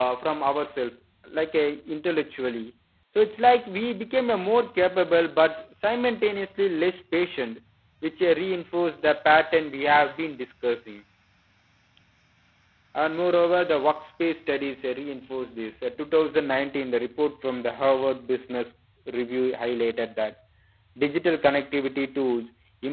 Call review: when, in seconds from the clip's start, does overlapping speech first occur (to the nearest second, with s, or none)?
none